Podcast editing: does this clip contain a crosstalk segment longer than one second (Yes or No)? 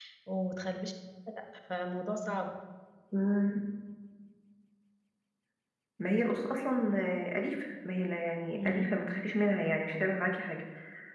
No